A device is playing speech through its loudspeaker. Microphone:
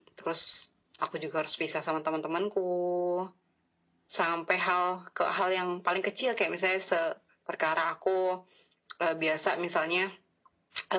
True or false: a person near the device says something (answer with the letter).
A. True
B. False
B